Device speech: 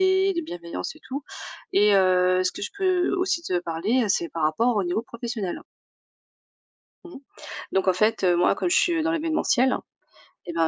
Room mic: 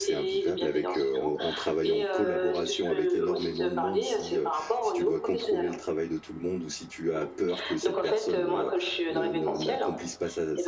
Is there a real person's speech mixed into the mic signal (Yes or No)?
Yes